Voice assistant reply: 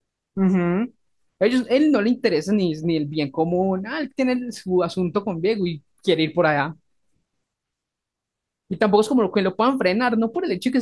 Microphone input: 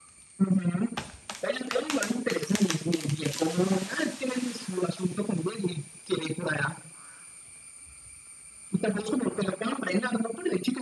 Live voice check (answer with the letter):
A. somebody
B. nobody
B